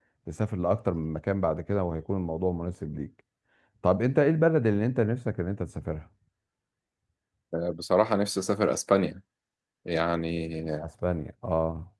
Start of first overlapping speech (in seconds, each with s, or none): none